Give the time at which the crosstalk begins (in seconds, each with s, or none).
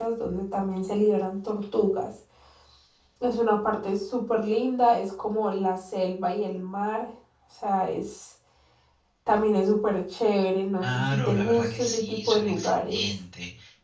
10.8 s